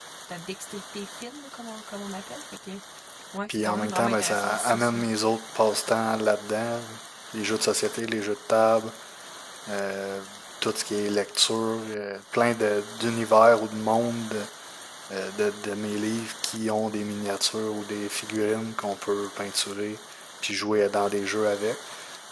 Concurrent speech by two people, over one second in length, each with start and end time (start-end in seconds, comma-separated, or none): 3.5-5.0